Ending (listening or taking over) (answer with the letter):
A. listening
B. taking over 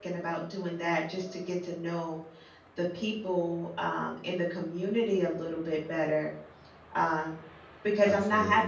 A